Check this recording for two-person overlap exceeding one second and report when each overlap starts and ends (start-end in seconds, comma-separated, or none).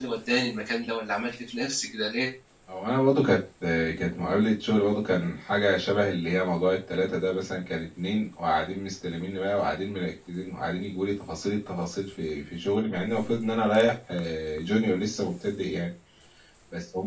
none